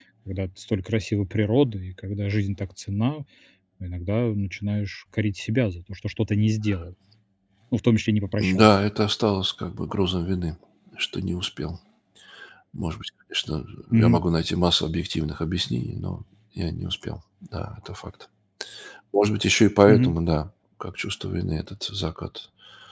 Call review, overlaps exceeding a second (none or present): none